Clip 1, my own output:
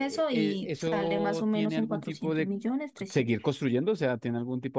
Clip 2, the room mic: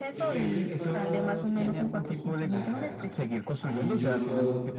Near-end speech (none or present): present